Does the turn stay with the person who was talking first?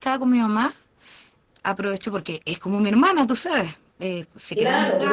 No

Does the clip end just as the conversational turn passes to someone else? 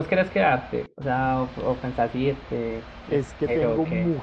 Yes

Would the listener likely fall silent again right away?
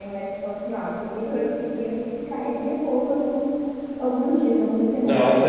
No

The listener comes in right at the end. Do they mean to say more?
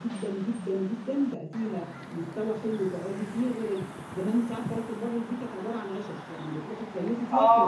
Yes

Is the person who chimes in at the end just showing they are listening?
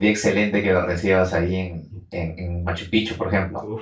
No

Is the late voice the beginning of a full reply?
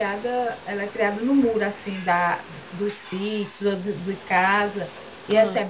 No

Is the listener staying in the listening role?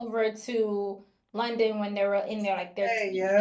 Yes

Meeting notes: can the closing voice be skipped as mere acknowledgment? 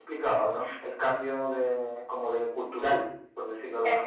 No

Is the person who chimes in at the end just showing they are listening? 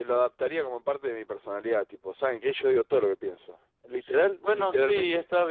No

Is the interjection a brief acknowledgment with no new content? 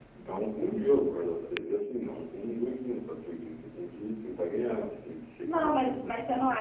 No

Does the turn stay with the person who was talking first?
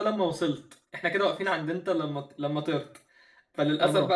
Yes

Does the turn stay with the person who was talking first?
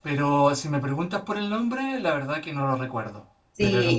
No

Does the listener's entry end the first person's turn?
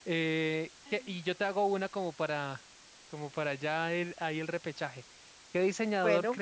No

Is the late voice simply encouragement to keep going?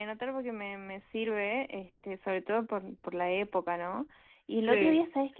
Yes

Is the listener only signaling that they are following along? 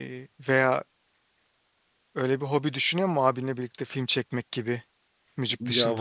No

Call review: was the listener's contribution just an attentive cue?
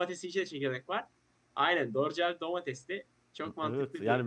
No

